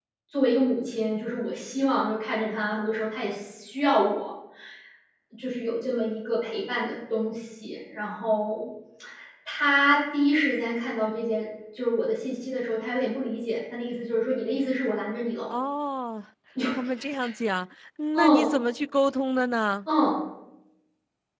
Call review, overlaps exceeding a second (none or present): none